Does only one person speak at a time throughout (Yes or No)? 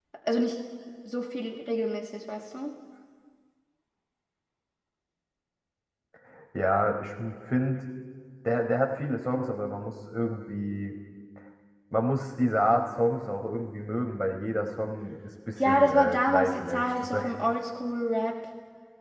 No